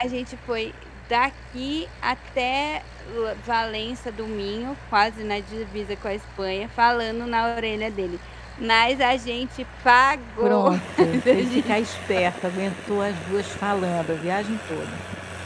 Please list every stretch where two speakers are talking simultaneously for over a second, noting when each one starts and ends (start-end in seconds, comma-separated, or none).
10.4-11.7